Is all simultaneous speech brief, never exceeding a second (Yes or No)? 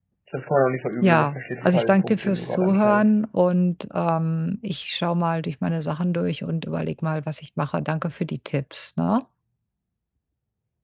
No